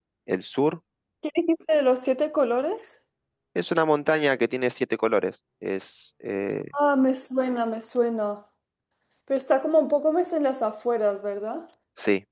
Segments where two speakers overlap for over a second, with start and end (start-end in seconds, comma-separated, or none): none